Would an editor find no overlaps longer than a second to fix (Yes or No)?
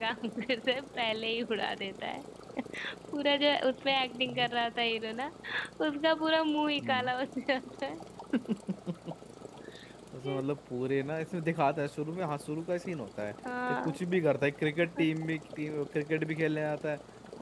Yes